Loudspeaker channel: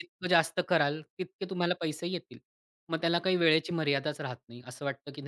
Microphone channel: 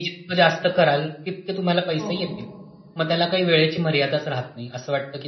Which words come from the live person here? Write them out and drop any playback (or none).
हो, हो.